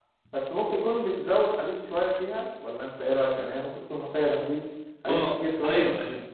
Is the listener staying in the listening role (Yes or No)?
No